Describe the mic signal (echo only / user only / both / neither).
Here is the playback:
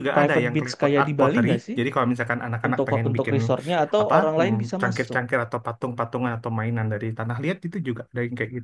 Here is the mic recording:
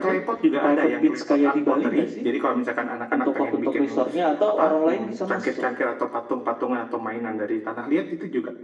echo only